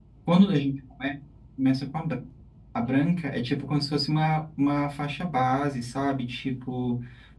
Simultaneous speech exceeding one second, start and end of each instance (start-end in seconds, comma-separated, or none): none